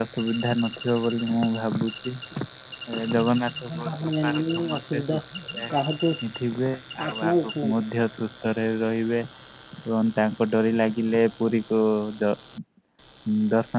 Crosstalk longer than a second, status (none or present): present